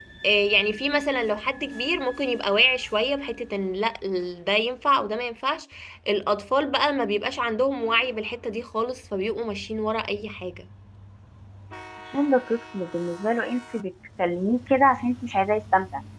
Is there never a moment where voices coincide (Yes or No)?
Yes